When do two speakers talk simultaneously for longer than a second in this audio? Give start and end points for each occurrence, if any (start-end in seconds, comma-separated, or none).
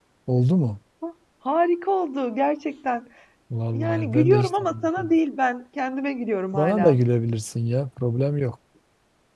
3.7-5.1